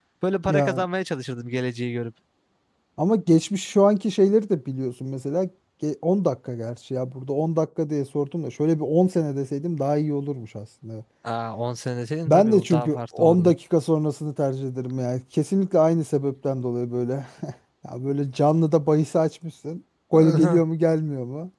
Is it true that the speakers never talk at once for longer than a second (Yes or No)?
No